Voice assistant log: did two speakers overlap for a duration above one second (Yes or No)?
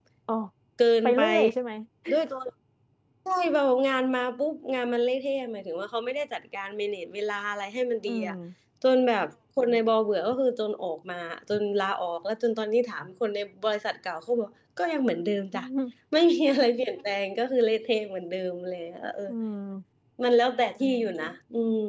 No